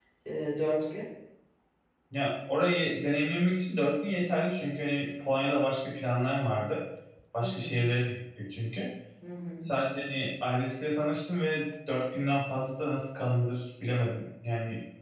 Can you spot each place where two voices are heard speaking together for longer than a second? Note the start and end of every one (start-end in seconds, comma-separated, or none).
none